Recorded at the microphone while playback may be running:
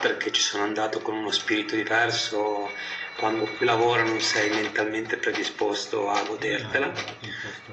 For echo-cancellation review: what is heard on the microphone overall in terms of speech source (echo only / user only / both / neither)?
both